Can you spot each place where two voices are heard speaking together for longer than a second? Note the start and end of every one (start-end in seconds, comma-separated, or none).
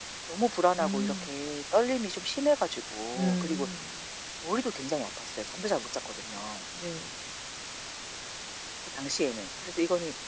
none